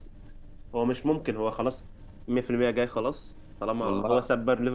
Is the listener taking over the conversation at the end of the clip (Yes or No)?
No